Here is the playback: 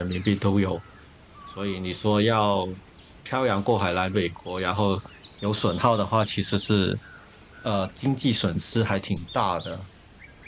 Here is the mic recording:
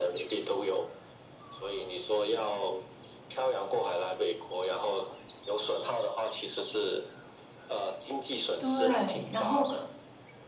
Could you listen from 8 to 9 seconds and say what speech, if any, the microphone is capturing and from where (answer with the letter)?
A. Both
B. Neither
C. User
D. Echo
A